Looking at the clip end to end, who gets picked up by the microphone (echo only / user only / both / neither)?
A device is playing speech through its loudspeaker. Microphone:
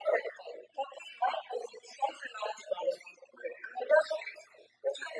echo only